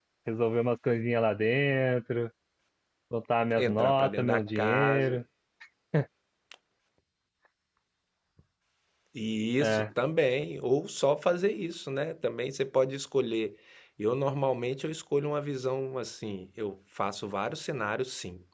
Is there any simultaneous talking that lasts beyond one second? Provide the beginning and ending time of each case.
3.6-5.2

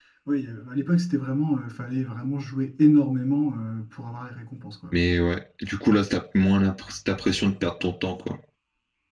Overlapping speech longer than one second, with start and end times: none

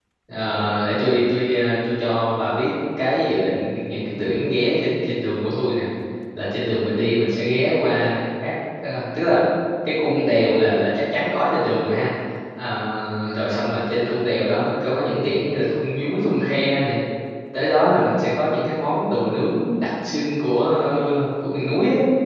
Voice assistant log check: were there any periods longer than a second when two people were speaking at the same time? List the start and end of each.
none

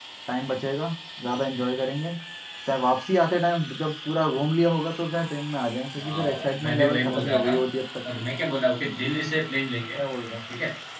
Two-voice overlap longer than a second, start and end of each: 6.0-7.5

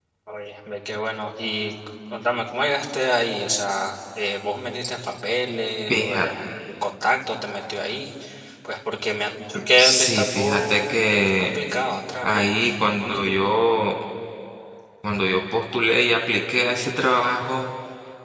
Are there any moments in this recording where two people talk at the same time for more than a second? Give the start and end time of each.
9.8-11.5

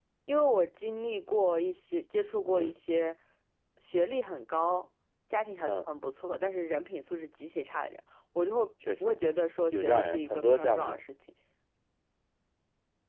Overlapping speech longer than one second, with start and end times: 9.7-11.0

